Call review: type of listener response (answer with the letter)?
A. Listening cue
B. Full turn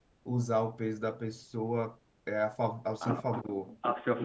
B